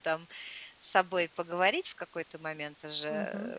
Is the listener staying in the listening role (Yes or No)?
No